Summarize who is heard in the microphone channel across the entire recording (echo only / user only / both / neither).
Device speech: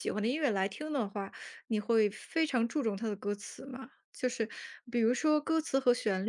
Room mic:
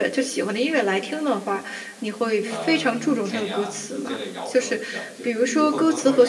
both